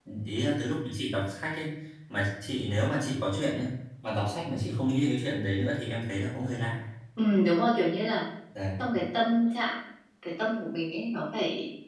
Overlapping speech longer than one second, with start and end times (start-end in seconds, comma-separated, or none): none